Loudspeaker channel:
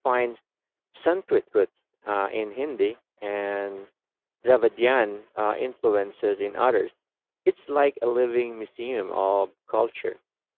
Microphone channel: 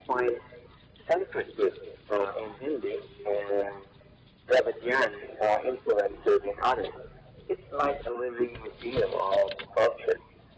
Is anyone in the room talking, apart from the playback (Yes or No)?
No